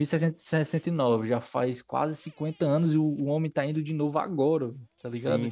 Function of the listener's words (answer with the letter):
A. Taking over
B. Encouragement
A